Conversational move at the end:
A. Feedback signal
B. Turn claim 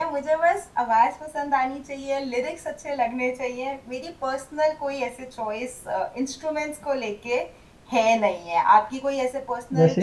B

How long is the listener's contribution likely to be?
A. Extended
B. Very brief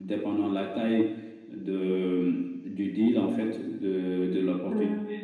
B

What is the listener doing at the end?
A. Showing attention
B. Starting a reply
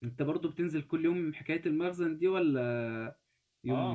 B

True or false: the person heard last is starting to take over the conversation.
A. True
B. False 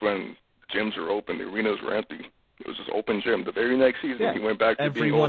A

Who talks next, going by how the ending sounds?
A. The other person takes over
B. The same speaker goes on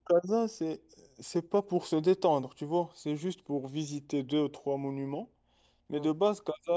B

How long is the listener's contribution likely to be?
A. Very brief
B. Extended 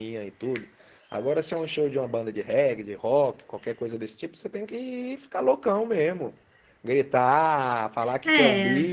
A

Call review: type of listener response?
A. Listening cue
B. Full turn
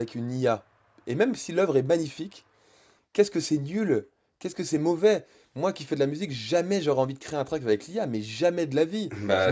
B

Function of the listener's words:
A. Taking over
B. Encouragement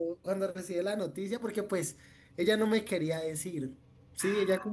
B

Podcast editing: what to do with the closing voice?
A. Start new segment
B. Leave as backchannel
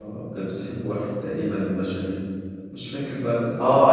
A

